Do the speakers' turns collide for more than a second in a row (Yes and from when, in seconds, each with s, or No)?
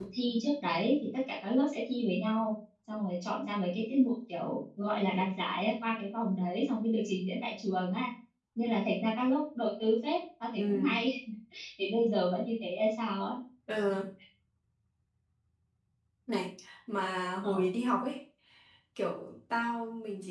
No